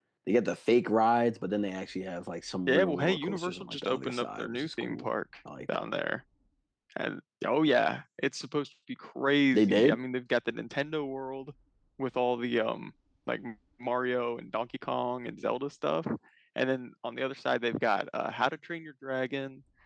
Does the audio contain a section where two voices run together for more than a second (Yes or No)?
Yes